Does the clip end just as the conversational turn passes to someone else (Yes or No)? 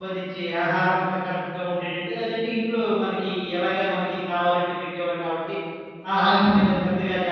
No